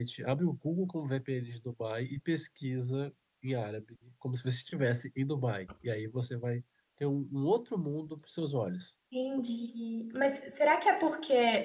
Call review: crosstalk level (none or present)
none